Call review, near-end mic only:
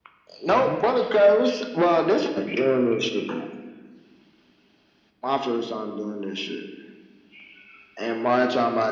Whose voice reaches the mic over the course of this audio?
both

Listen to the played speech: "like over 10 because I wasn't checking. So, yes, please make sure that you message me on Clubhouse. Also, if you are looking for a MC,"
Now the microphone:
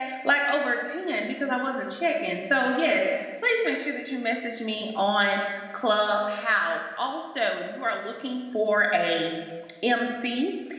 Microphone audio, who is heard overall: echo only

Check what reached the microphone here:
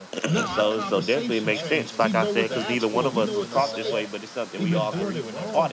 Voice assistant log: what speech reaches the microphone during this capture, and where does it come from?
both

